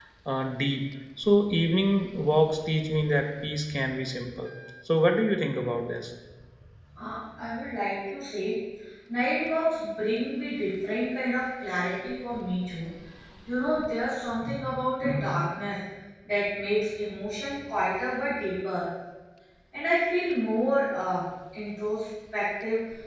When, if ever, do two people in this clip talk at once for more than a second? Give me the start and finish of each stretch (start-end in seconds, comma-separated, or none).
none